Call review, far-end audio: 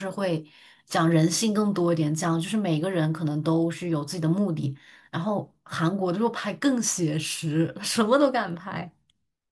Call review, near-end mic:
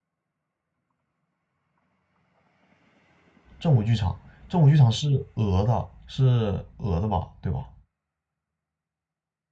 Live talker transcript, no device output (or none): 正午剧场，正午剧场是俄的，是俄的吧，对吧？